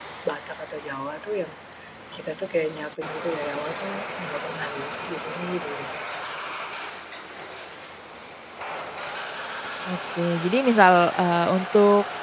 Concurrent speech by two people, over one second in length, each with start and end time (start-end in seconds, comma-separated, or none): none